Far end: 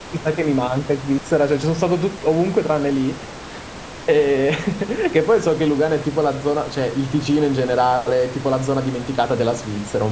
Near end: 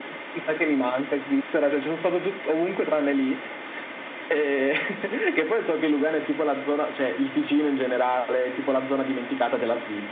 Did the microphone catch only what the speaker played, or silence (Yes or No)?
Yes